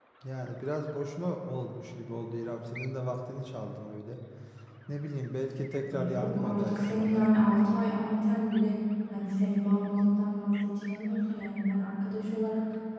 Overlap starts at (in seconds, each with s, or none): 5.9 s